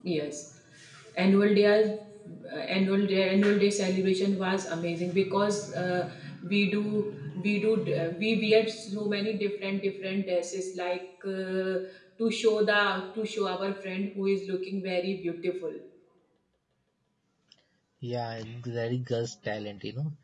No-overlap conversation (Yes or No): Yes